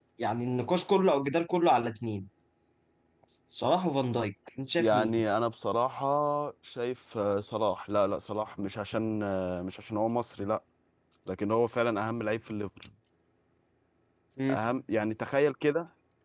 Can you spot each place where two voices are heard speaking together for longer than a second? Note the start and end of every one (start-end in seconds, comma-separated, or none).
none